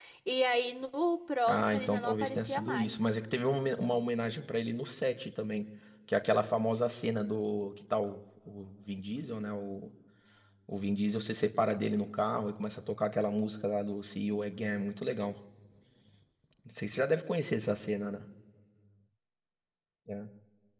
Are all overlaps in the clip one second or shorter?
No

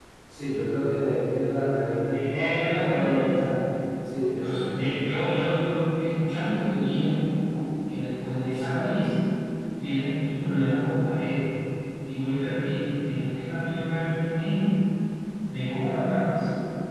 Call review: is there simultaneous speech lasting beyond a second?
Yes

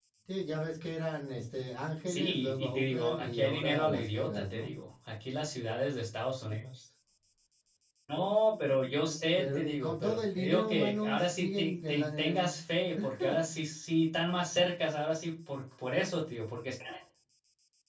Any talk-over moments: Yes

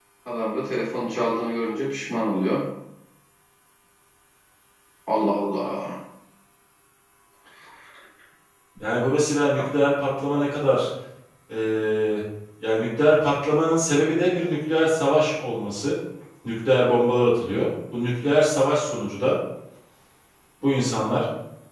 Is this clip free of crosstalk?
Yes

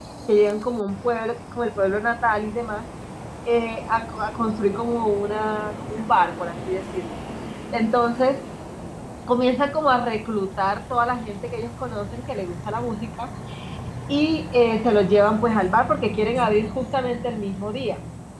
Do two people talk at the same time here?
No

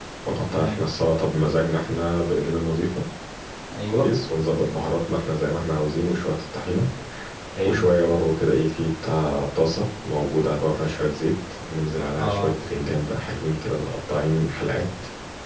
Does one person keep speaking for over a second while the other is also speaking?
No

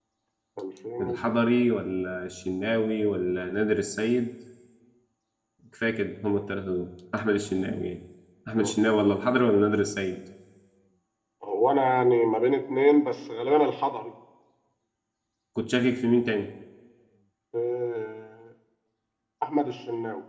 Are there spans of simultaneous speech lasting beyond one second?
No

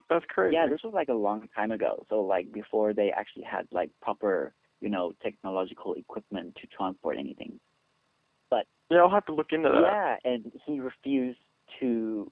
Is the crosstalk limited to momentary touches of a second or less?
Yes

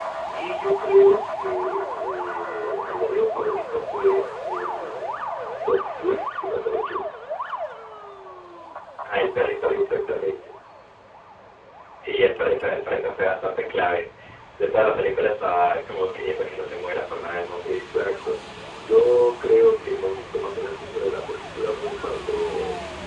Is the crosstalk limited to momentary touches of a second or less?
Yes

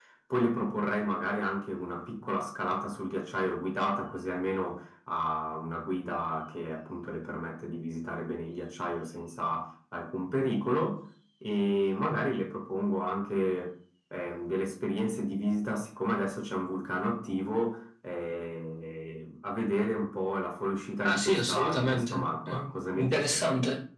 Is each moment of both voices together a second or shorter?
No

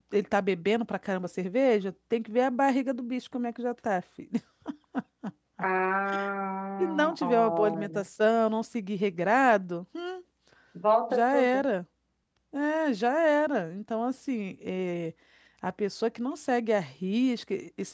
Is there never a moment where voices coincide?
No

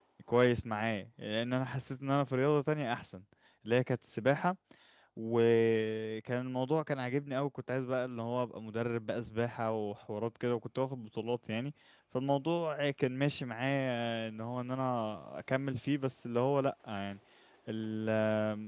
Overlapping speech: No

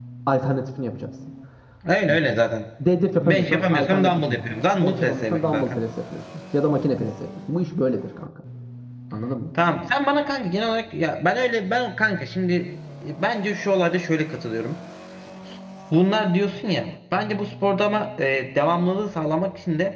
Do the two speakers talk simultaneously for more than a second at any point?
Yes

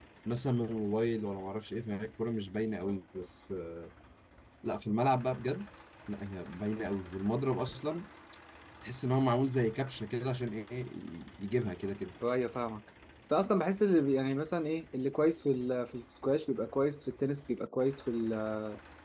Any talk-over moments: No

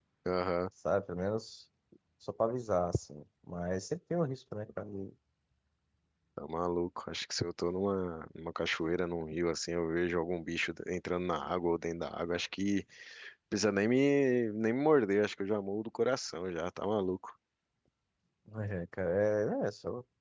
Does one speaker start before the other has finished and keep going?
No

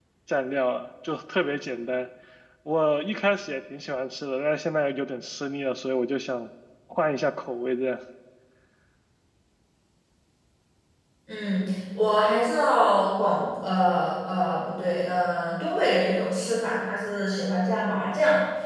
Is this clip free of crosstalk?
Yes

